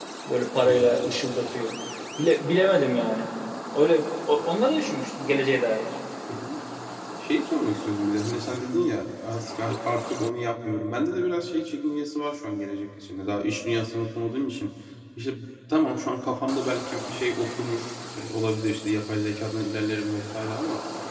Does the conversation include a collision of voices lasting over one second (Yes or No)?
No